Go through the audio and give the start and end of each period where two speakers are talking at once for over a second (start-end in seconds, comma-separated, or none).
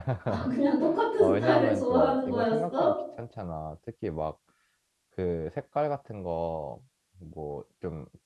1.2-2.9